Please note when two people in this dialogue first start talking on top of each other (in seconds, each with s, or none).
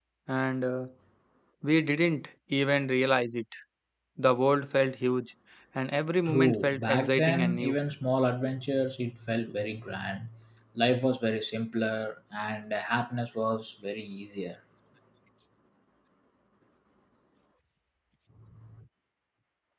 6.3 s